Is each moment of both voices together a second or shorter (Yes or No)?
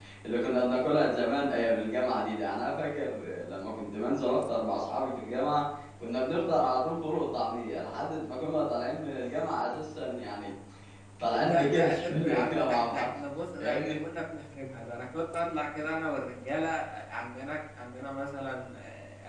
No